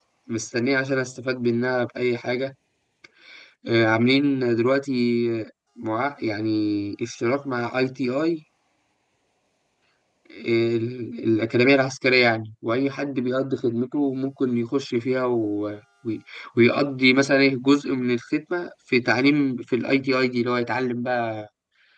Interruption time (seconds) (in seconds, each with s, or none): none